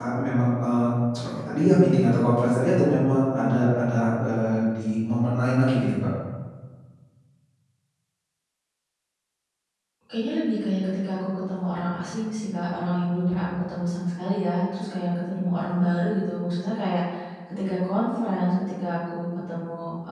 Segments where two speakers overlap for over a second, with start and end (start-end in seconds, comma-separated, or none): none